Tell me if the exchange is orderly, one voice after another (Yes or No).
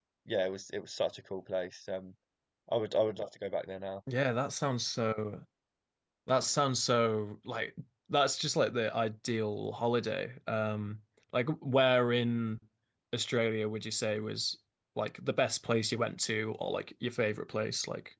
Yes